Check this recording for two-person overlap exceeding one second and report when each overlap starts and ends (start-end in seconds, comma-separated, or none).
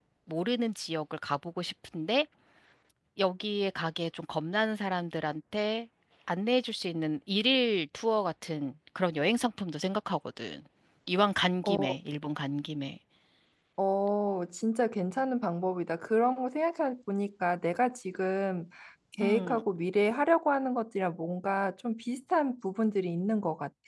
none